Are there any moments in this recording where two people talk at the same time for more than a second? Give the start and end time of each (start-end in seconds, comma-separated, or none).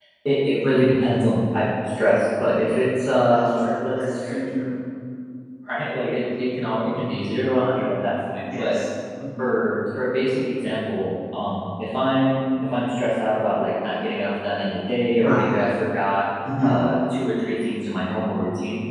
3.2-4.7